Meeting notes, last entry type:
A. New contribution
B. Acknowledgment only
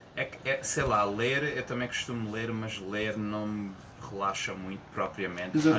A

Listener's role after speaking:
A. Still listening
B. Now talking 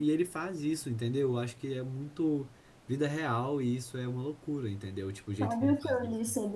B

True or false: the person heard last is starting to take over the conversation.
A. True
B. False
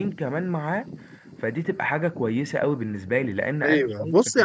A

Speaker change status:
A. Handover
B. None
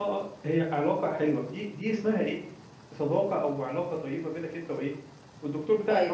A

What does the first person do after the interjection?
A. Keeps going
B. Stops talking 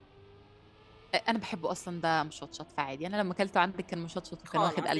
B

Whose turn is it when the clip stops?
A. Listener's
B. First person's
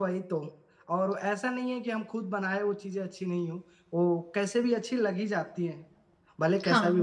A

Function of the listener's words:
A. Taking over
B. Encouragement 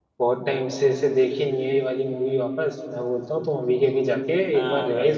A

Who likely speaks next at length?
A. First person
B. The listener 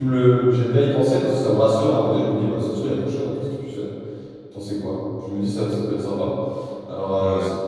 A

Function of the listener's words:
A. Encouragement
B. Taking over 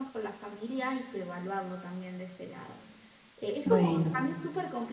A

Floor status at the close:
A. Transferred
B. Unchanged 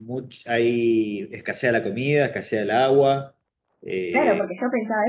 A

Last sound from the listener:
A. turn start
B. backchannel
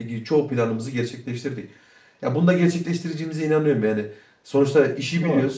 B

